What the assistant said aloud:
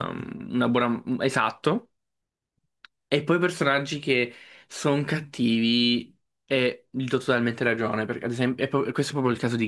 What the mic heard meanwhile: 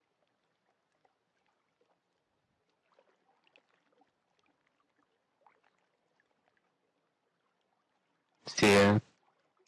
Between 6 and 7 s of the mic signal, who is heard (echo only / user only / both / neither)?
neither